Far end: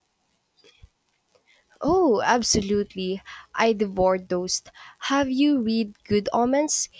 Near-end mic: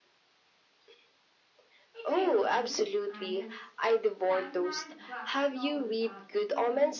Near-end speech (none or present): present